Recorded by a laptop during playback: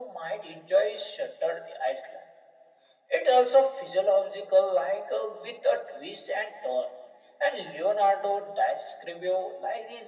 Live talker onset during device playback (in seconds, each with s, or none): none